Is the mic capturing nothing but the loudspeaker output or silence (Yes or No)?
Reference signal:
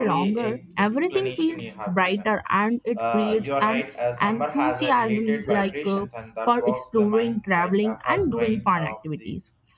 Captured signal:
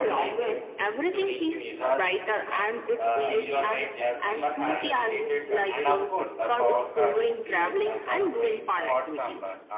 No